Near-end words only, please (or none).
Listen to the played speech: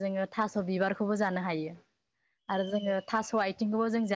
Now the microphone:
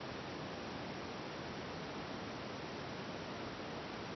none